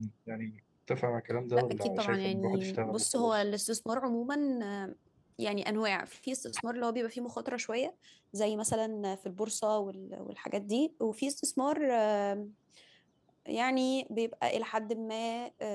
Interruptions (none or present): present